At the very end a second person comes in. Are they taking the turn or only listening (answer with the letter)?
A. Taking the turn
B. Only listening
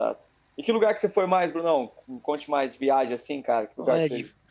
A